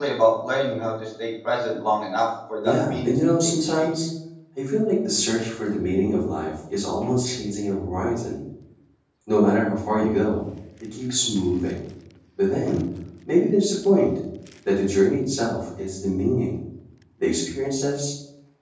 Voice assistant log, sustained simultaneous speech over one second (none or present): present